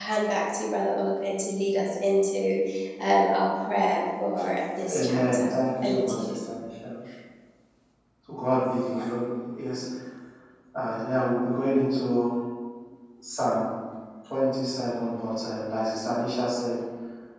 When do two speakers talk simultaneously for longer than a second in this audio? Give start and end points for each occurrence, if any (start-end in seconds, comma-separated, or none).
4.9-6.3